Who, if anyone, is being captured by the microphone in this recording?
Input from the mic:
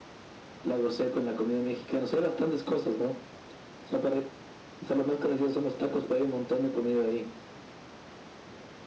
echo only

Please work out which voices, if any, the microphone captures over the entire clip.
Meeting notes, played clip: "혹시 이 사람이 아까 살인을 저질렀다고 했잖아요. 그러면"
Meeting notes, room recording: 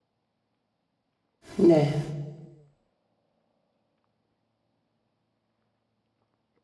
user only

